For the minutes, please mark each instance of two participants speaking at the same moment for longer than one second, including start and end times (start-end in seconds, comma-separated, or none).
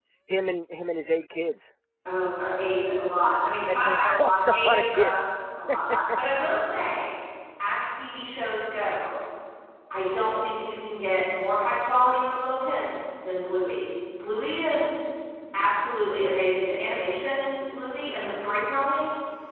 3.7-5.1